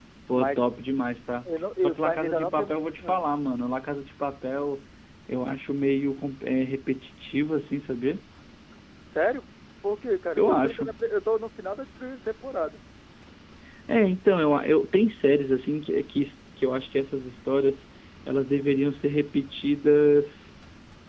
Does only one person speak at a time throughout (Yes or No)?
No